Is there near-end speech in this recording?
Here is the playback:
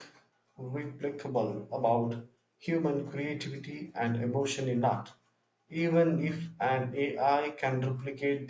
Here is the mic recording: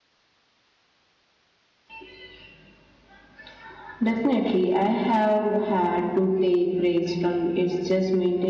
Yes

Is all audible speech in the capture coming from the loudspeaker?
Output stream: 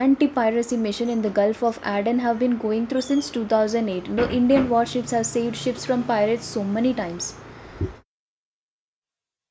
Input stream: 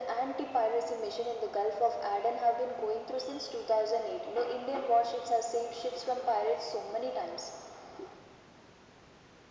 Yes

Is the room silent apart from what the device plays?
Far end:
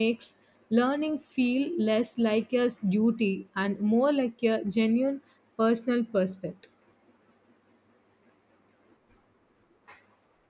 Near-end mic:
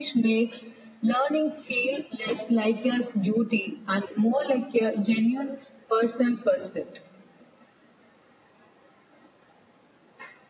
Yes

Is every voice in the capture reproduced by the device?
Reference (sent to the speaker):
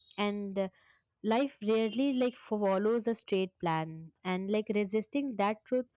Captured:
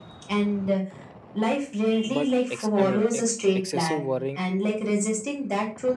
No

